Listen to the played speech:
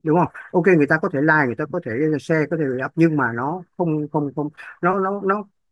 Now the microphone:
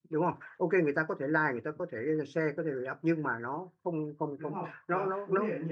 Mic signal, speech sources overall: both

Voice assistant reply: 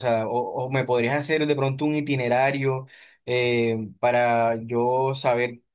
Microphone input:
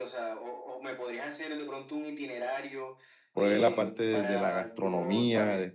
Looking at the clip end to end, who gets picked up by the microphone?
both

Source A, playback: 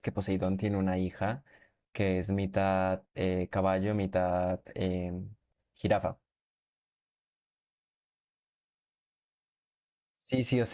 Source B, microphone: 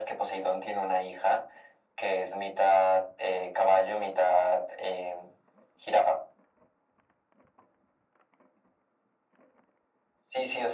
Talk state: echo only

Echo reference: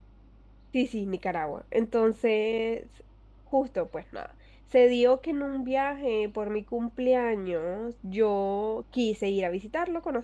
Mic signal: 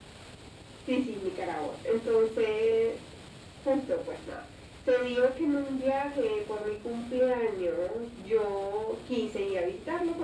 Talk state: echo only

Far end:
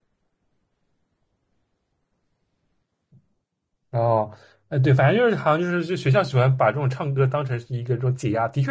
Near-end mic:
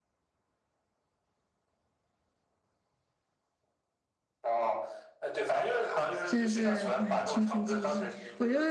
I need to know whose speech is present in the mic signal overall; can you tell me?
both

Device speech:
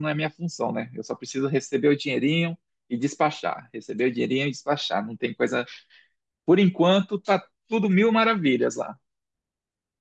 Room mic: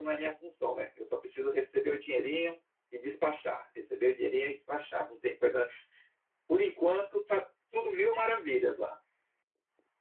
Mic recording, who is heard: echo only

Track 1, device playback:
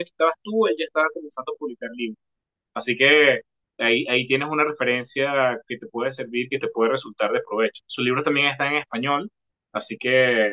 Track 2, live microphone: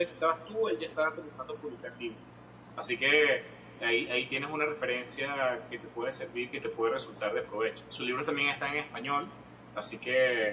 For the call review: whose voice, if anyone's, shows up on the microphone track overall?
echo only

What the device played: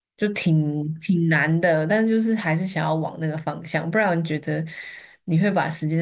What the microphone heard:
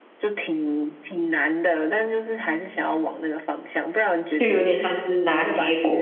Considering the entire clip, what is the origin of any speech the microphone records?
both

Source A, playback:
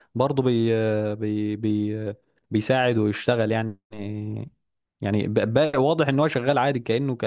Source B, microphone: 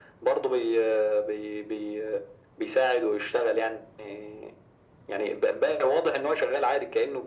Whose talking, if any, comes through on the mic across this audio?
echo only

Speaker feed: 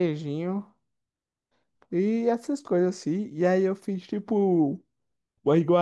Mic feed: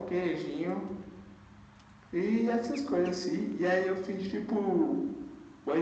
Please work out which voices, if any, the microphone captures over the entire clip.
echo only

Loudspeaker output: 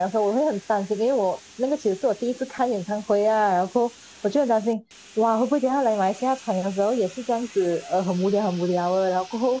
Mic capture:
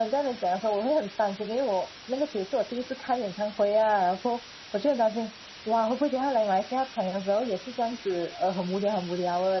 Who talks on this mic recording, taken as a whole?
echo only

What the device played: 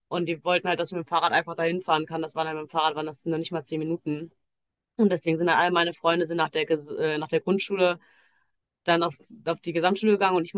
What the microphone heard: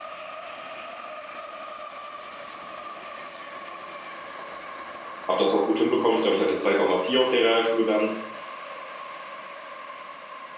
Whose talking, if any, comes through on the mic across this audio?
user only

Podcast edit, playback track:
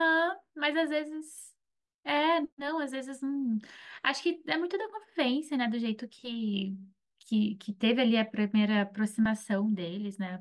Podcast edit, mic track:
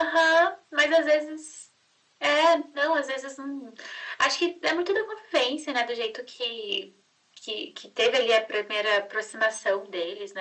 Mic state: echo only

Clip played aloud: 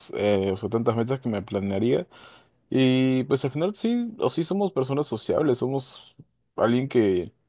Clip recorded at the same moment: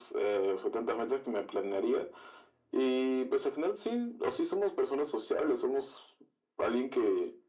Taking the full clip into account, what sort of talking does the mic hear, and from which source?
echo only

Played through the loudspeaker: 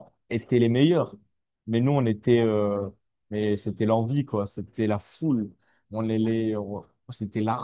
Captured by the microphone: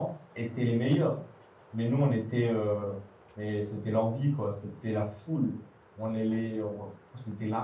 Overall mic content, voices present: echo only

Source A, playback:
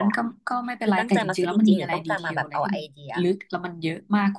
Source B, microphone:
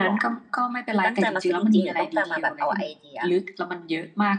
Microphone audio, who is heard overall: echo only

